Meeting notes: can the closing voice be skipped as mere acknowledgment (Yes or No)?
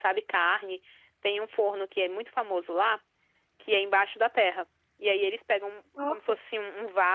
Yes